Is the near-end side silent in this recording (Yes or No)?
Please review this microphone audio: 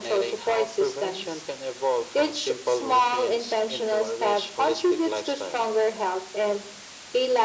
Yes